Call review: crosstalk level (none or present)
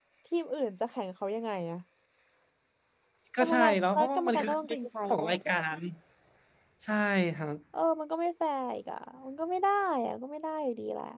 present